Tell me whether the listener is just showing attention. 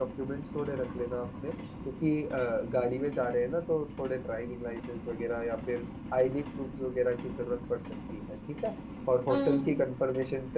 Yes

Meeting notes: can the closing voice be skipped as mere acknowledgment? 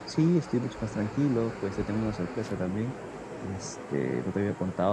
Yes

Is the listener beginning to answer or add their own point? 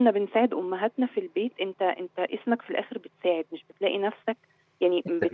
No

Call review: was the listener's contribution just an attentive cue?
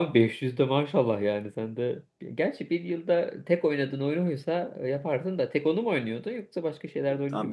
No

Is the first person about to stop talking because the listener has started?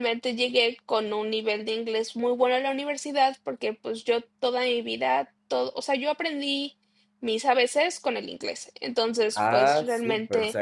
Yes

